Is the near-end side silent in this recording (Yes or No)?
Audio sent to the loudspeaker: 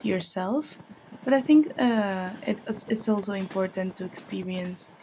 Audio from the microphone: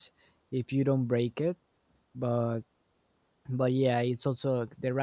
No